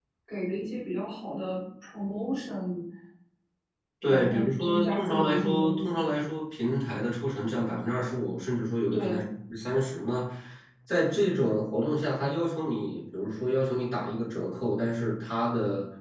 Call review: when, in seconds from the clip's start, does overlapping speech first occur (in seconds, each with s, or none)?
4.1 s